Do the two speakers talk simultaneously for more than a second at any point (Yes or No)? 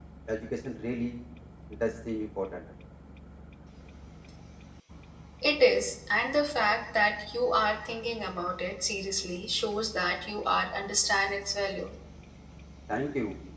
No